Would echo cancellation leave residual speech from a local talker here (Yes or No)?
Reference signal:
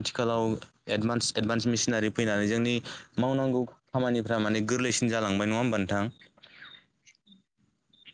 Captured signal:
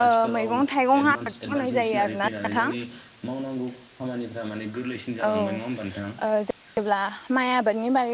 Yes